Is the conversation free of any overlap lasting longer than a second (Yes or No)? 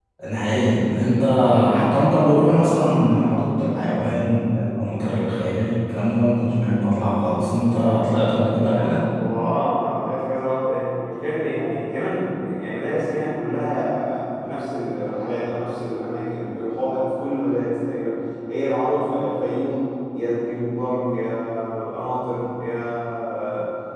Yes